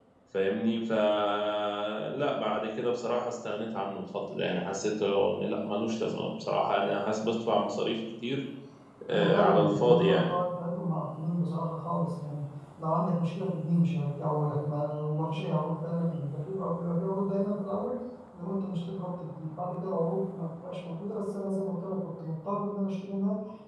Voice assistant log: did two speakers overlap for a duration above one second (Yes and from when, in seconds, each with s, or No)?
Yes, from 9.1 s